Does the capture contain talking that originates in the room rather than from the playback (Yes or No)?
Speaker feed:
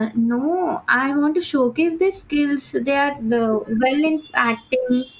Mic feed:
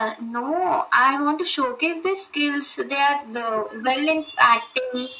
No